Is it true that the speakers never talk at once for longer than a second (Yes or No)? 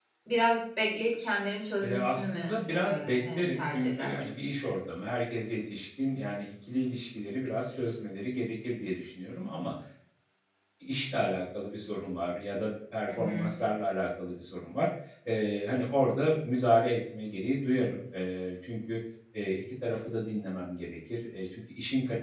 No